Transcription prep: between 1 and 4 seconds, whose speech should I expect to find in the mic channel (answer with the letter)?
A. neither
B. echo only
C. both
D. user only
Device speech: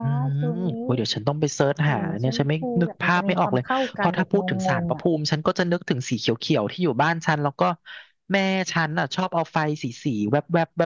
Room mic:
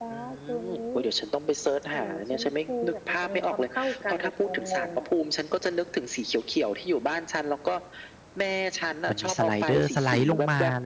B